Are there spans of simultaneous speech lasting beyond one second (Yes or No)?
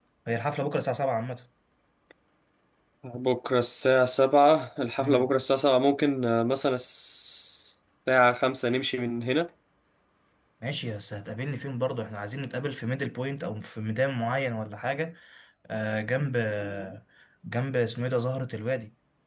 No